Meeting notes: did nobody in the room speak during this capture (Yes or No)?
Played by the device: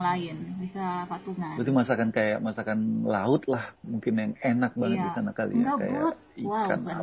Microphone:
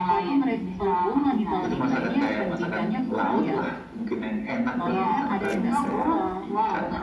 No